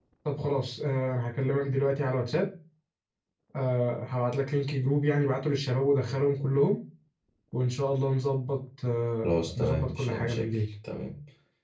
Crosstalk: present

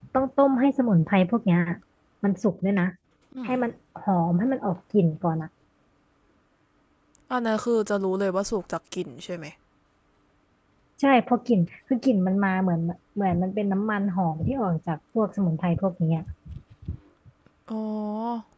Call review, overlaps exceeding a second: none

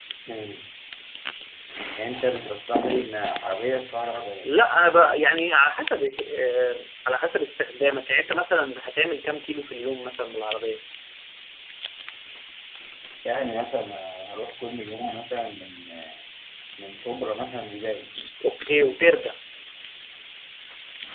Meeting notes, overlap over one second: none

